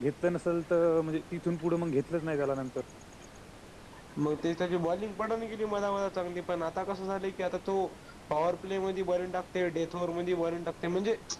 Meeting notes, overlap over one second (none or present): none